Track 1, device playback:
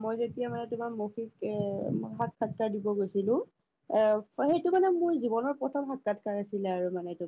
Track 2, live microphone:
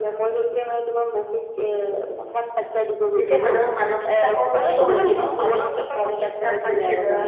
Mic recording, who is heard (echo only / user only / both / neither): both